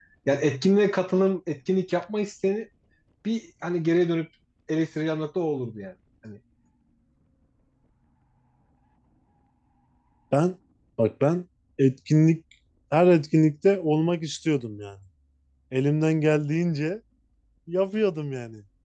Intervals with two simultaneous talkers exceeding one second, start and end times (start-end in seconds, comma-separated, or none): none